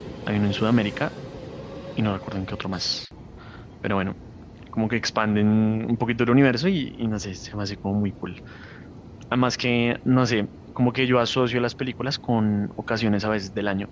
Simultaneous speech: No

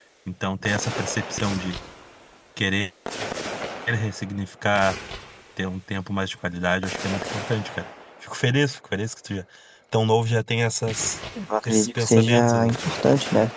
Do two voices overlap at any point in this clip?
Yes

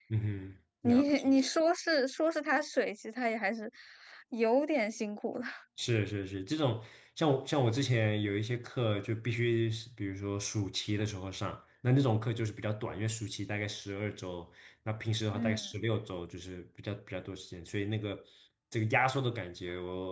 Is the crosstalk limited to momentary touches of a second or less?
Yes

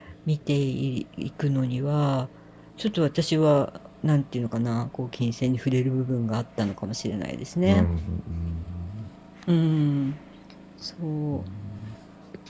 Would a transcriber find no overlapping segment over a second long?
Yes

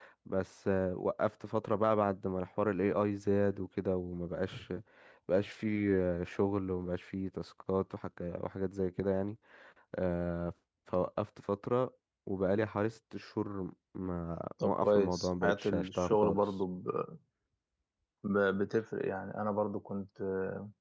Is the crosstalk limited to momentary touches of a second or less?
No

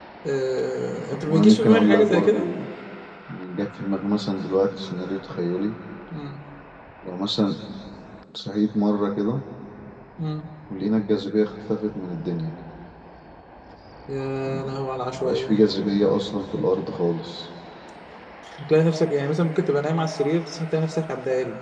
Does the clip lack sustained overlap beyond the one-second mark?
No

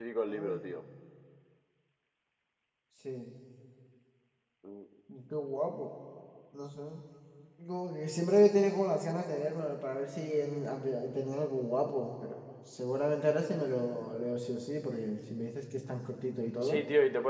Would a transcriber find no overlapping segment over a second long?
Yes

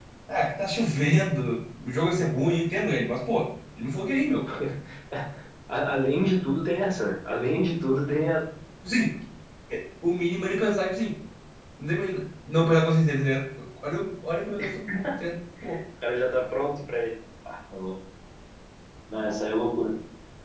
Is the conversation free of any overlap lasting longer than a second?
Yes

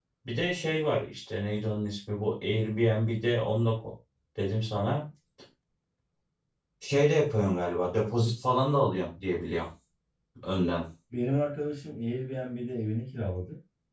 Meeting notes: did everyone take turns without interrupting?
Yes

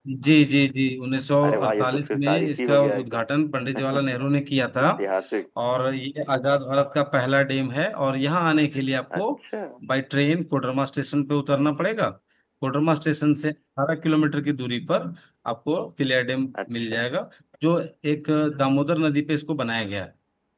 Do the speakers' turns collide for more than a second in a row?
Yes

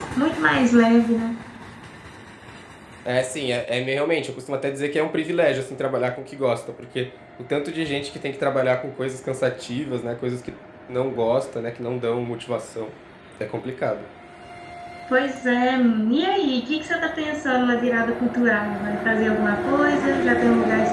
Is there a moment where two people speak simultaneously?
No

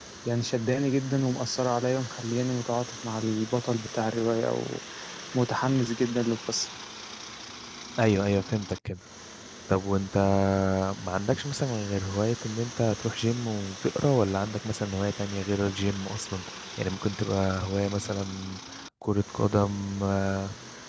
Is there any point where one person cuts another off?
No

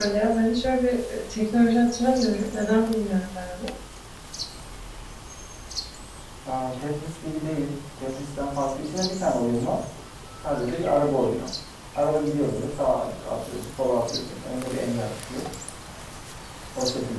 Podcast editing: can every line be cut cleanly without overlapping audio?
Yes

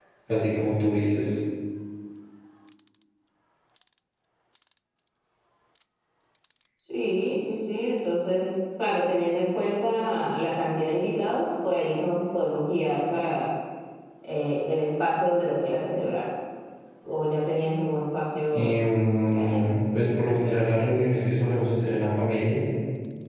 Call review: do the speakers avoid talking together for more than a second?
Yes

